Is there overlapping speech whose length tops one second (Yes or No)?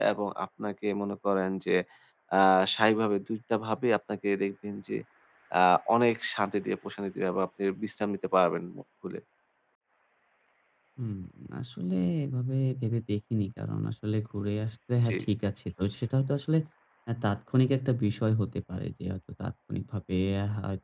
No